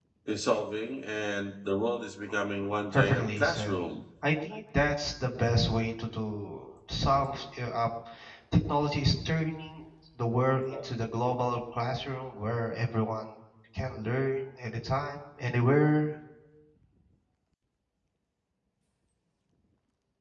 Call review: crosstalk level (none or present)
present